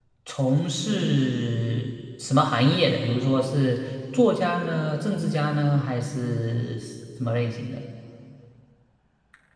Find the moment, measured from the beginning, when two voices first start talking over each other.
none

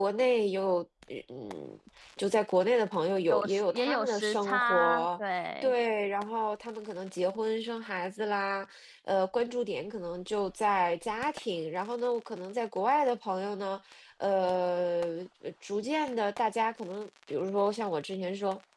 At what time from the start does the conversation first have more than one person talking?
3.3 s

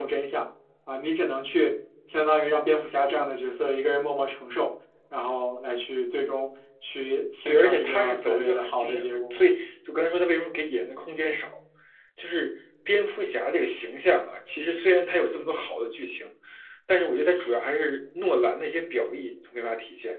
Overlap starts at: 7.5 s

